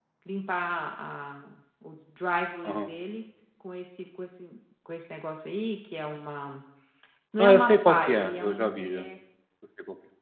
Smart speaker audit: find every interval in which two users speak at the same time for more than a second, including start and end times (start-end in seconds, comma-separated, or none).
7.4-9.0